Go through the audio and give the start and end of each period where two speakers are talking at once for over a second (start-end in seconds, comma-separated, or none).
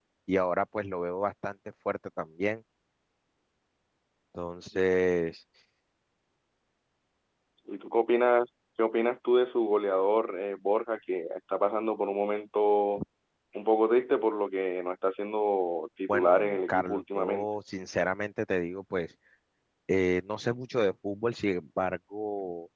16.1-17.5